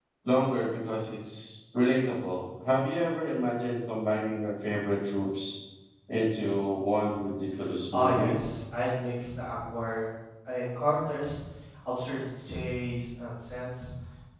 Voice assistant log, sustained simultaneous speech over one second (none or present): none